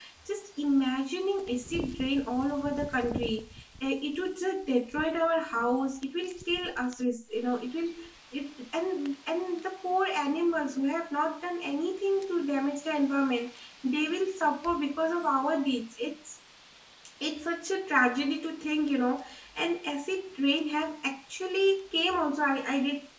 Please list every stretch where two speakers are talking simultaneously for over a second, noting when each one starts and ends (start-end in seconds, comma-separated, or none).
none